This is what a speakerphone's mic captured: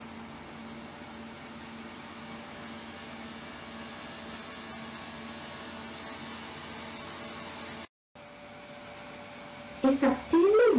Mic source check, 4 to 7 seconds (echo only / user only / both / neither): neither